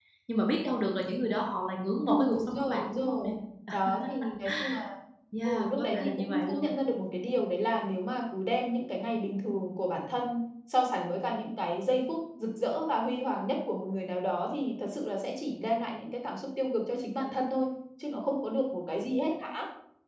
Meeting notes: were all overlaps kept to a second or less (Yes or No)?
No